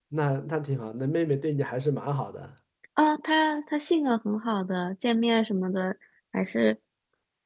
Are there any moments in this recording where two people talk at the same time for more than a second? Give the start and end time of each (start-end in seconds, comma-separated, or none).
none